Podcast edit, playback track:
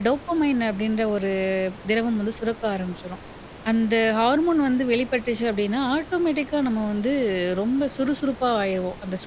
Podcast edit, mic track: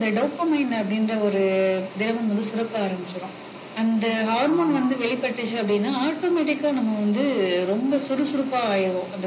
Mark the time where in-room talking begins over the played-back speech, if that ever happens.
4.5 s

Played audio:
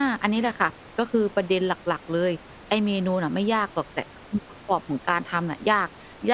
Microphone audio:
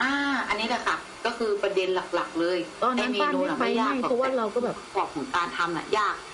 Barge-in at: 2.8 s

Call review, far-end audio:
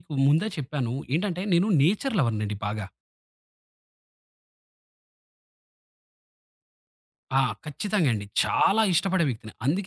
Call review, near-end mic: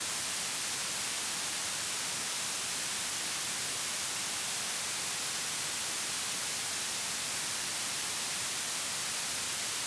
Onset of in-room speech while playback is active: none

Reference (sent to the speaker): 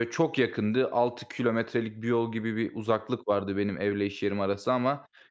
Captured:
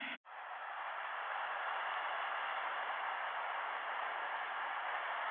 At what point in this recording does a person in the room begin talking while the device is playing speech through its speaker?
none

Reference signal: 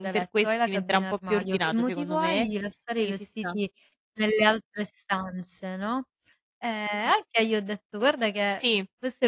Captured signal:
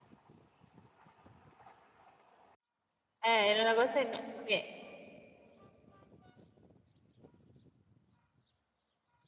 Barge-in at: 3.2 s

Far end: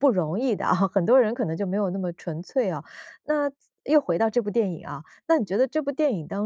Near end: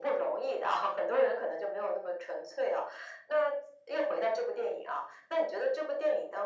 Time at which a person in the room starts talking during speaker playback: none

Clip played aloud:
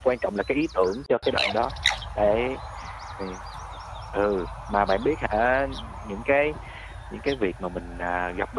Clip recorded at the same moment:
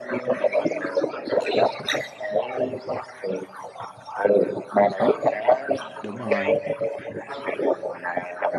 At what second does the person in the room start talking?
6.0 s

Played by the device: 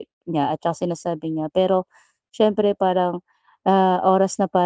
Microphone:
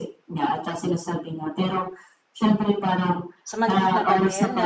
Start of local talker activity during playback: 3.4 s

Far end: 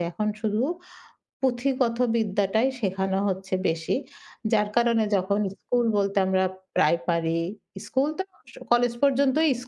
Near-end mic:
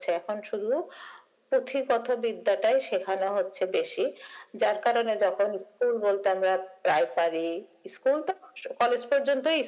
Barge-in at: none

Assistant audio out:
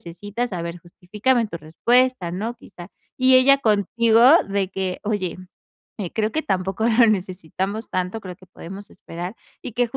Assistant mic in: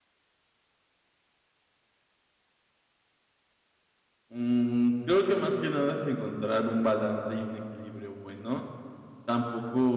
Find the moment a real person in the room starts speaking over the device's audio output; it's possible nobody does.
4.3 s

